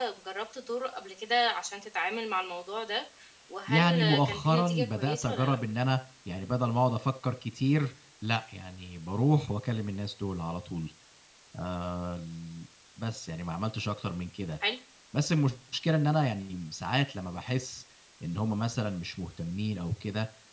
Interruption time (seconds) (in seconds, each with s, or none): 3.7 s